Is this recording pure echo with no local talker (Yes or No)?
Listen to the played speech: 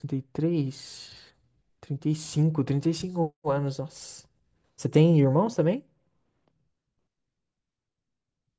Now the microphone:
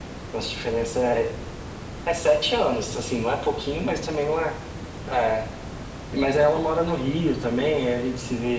No